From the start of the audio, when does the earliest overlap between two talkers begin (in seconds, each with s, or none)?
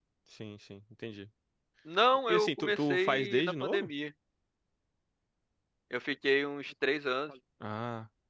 2.3 s